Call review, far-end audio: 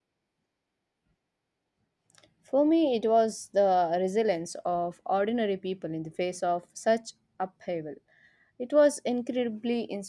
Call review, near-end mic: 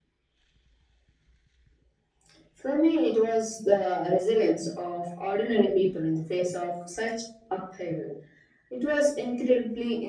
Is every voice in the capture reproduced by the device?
Yes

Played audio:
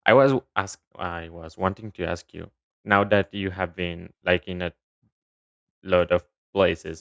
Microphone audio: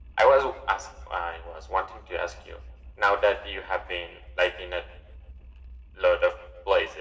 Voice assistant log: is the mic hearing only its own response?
Yes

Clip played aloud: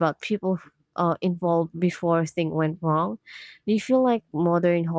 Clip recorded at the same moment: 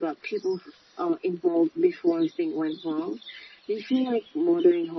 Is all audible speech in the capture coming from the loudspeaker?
Yes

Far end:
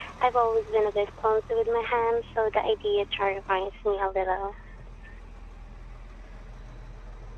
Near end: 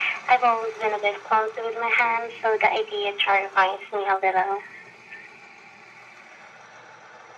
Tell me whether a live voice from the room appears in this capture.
No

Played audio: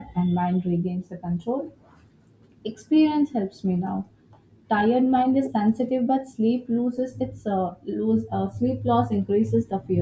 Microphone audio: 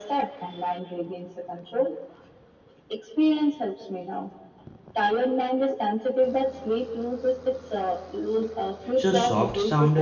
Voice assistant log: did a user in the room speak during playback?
Yes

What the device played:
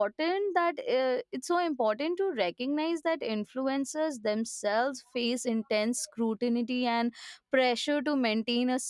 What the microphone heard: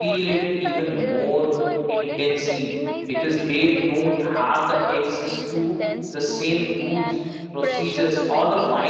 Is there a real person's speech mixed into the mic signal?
Yes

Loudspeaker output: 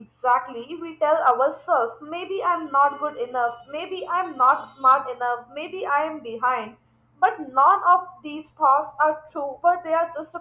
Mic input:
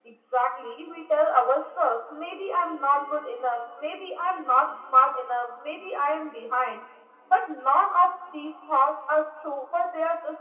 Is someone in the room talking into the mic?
No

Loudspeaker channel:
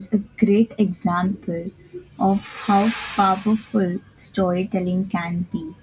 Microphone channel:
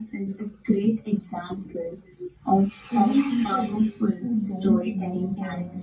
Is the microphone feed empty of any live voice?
No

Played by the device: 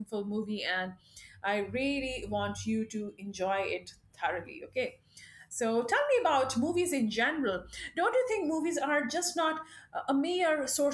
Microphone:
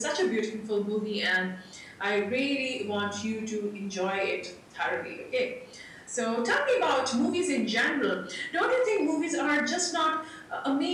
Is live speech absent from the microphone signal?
Yes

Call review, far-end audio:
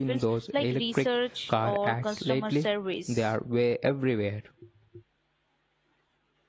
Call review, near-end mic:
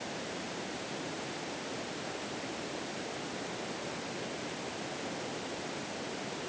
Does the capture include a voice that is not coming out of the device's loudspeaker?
No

